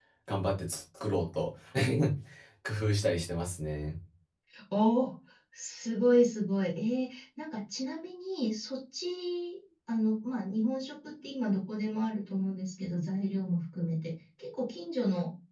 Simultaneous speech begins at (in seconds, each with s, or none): none